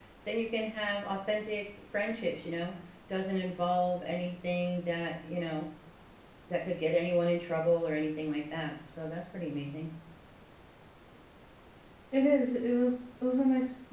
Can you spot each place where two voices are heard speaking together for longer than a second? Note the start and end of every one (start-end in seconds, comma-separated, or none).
none